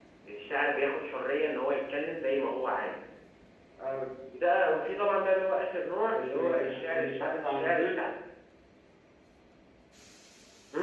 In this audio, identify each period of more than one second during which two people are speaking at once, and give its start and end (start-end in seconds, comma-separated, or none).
6.1-8.0